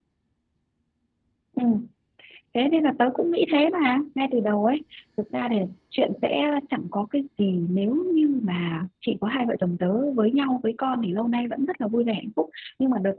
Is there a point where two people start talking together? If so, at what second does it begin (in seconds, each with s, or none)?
none